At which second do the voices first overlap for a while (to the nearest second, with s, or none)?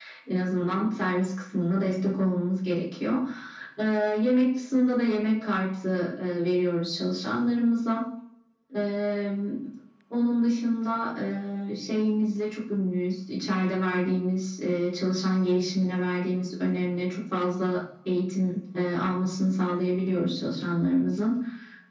none